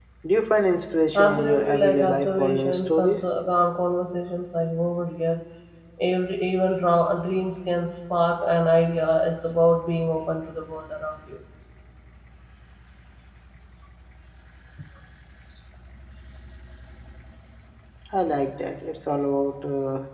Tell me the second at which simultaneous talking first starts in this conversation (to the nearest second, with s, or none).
1 s